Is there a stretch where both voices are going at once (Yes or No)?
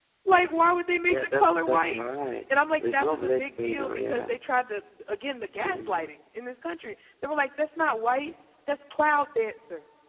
Yes